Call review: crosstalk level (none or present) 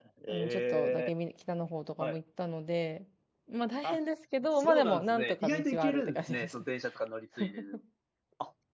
present